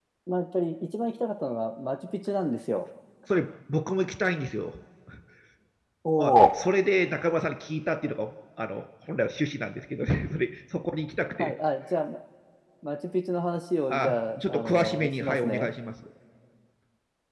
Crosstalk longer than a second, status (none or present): present